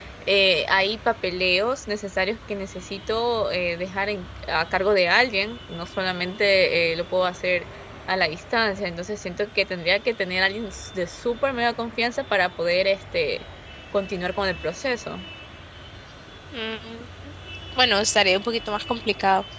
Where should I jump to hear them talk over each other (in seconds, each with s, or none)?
none